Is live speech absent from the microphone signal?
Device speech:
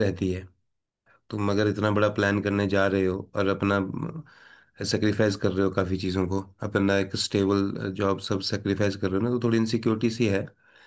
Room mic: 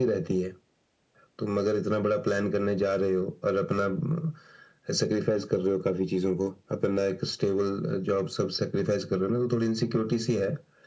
Yes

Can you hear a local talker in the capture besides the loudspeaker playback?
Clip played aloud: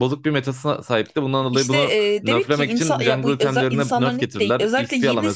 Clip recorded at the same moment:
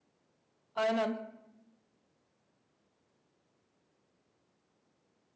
Yes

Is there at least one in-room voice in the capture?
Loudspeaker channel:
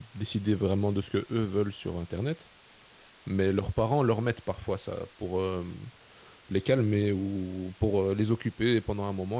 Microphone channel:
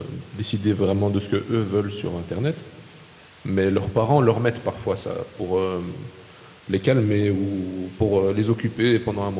No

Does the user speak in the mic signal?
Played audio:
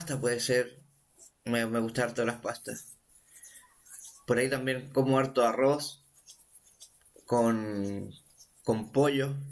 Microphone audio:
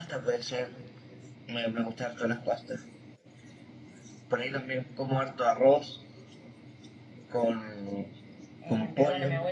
Yes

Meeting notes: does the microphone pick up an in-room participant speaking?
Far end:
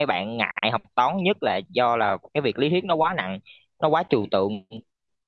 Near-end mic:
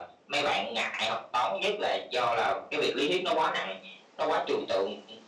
No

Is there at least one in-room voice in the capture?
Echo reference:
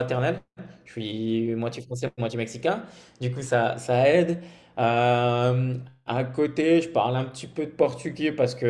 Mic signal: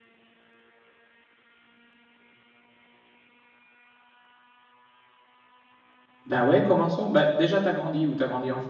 Yes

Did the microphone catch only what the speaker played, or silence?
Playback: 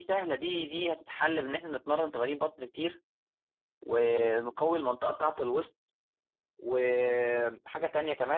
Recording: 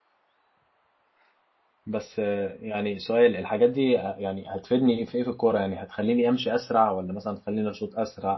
No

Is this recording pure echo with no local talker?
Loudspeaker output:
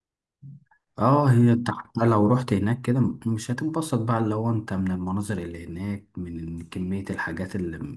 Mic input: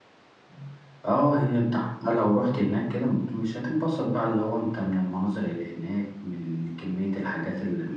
Yes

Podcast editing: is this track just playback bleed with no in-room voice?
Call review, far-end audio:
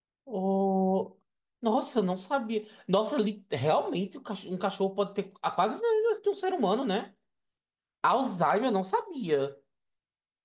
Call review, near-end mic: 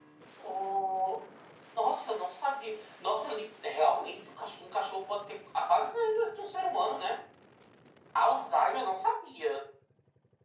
Yes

